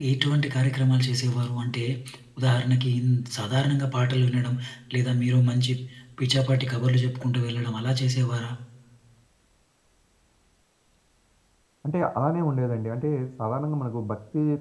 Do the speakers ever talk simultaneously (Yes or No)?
No